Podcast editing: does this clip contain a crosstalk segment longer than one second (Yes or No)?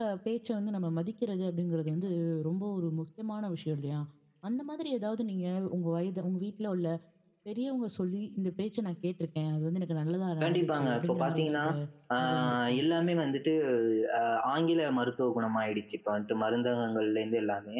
Yes